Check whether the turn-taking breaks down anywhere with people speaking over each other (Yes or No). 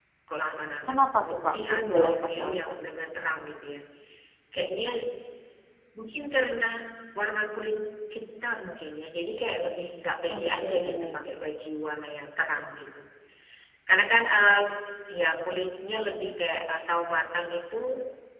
Yes